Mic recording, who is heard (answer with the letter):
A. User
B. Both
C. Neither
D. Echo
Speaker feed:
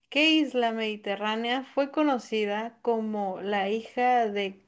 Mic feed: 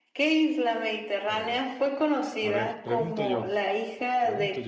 B